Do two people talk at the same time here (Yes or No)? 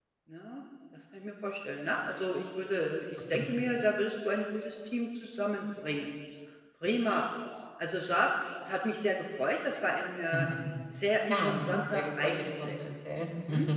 Yes